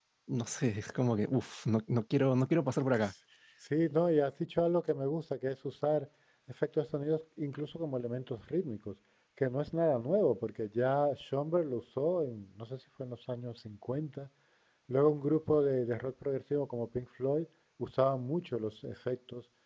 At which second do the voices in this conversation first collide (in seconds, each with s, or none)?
none